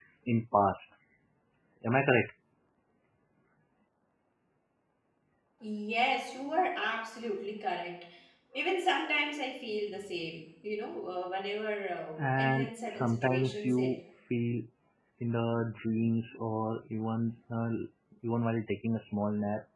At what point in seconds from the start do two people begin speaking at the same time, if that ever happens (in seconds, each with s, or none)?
12.2 s